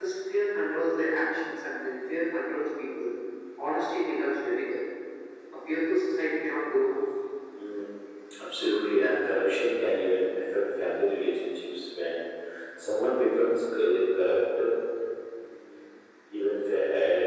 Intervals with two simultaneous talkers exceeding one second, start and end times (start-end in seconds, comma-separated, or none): none